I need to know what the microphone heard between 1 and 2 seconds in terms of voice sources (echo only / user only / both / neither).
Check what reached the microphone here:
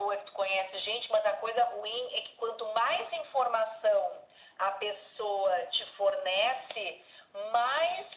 echo only